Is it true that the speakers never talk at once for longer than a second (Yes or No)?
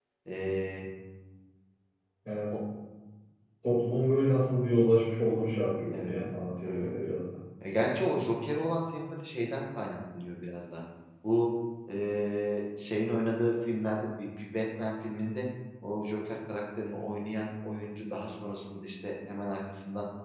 Yes